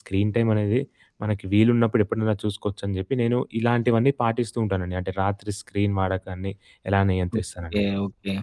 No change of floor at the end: No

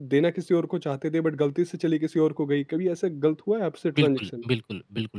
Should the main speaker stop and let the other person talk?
Yes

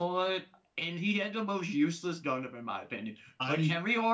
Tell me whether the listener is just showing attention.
Yes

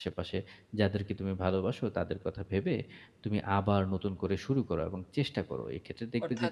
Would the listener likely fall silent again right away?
No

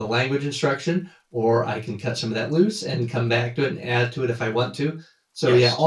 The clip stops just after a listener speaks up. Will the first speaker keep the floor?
Yes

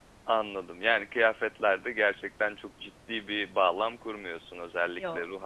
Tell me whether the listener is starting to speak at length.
No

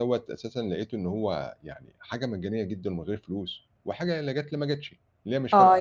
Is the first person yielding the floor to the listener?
Yes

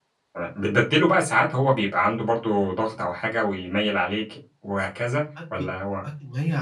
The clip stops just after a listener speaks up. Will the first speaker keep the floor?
No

